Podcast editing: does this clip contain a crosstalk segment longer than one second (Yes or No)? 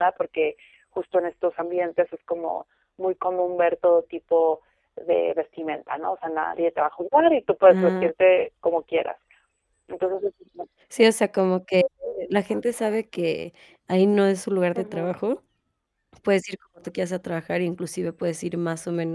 No